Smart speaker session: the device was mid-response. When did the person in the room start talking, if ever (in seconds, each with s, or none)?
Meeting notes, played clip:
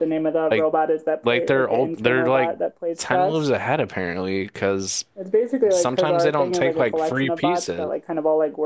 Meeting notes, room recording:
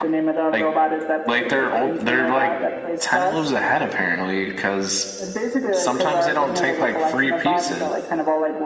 none